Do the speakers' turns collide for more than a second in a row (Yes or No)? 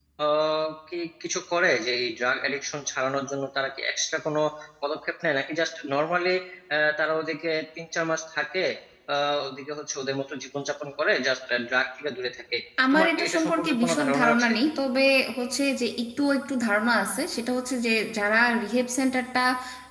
Yes